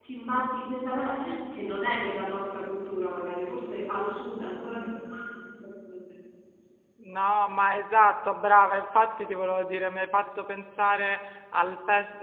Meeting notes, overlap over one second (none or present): none